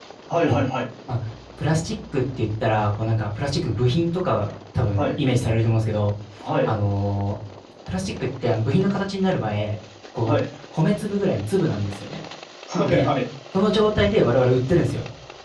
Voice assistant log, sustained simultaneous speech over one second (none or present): none